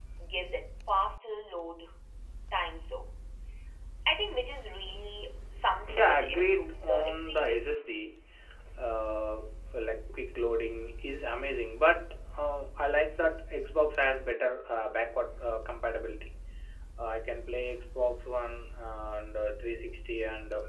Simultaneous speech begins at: 5.8 s

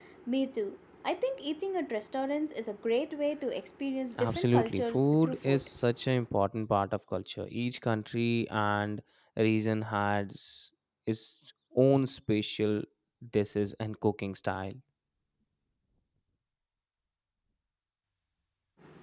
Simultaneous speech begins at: 4.2 s

